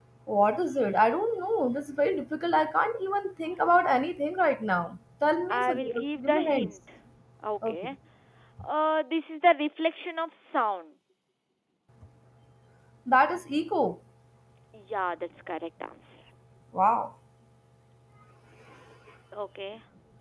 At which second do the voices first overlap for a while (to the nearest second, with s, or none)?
6 s